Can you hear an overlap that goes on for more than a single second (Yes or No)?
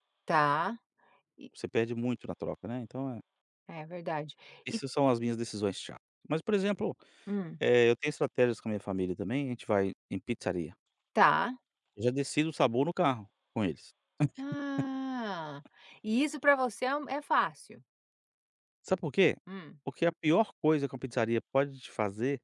No